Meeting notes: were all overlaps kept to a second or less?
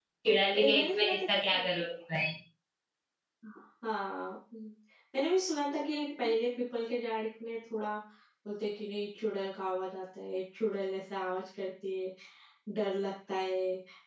No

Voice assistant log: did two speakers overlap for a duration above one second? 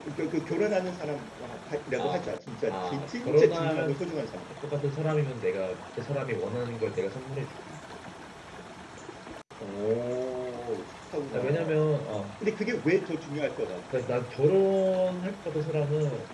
Yes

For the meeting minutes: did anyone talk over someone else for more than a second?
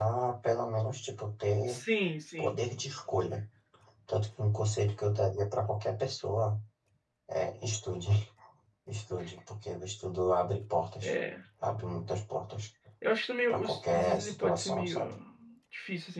Yes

